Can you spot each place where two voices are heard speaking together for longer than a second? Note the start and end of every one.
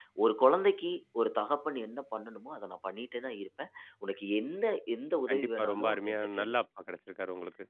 5.3-6.6

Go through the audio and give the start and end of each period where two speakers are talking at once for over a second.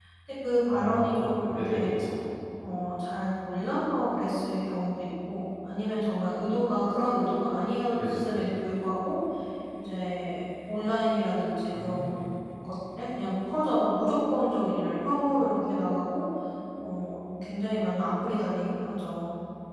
0.7-1.9

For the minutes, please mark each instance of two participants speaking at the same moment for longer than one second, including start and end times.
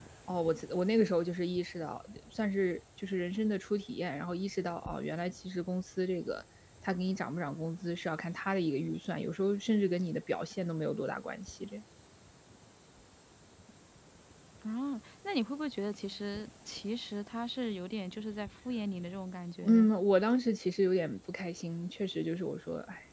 none

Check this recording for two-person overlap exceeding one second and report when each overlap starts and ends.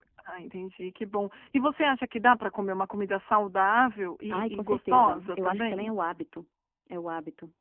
4.3-5.9

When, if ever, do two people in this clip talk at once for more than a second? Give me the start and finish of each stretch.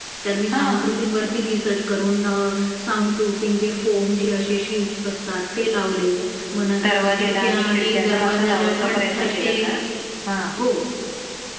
6.8-9.5

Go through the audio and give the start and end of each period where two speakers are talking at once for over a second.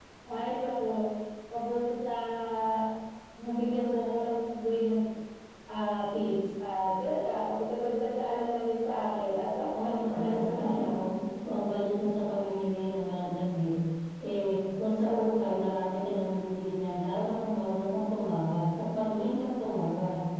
9.7-11.0

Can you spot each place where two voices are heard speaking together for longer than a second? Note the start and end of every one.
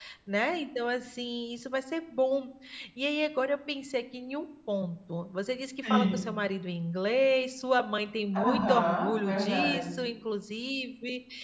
8.3-10.1

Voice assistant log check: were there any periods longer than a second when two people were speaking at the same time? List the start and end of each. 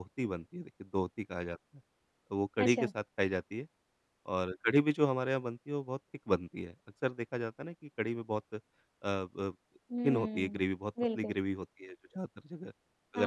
none

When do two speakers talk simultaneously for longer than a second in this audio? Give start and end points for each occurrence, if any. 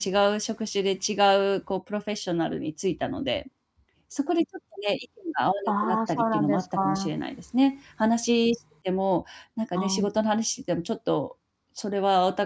5.7-7.1

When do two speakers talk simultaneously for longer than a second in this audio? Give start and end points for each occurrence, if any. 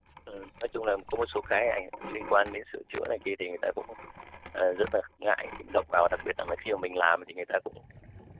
none

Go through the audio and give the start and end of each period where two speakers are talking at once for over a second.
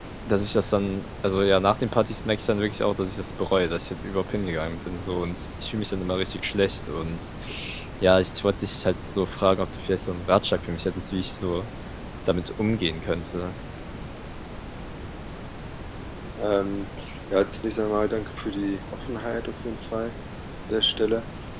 none

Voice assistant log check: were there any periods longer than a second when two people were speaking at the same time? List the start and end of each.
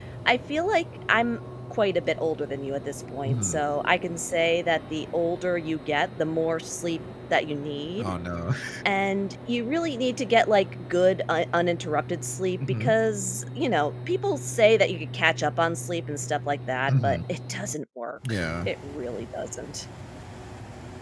none

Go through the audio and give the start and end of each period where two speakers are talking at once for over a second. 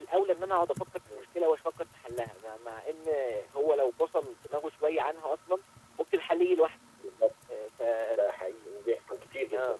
none

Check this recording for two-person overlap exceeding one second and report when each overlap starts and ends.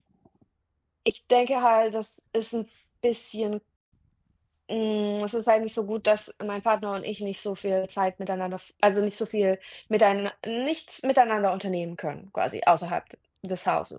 none

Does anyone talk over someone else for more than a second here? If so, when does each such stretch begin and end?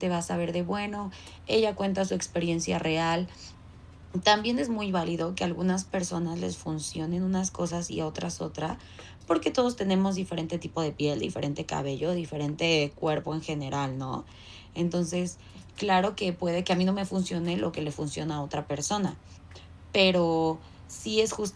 none

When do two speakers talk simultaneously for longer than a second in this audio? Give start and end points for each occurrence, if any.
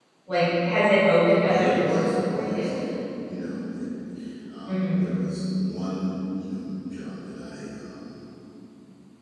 1.5-2.7

